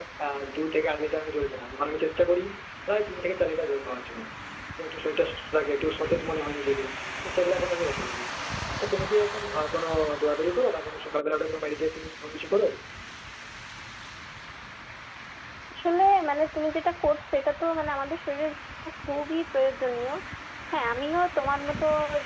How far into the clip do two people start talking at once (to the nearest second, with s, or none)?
none